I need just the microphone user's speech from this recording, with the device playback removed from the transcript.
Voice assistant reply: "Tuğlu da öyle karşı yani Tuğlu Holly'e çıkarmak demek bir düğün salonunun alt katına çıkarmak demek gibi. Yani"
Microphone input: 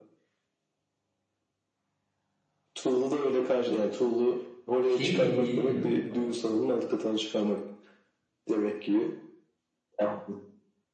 Şey dinleyelim mi? Bak,

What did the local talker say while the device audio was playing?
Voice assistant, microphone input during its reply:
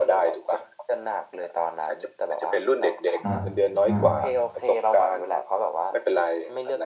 อ่าอ่า

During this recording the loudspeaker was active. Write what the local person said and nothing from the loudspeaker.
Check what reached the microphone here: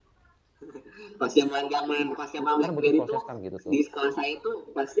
kan butuh proses kan gitu tuh.

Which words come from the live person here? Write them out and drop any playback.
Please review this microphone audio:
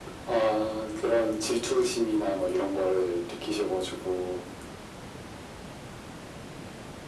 none

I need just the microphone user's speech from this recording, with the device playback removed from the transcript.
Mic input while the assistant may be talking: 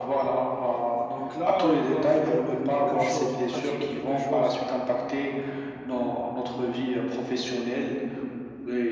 Donc là, on va faire euh, quelque chose ou pratiquer quelque chose

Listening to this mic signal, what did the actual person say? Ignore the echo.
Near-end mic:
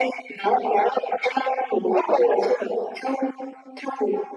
none

